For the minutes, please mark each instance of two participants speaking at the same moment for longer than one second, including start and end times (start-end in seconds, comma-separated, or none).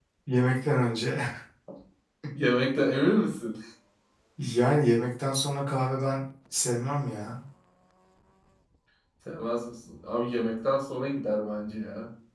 none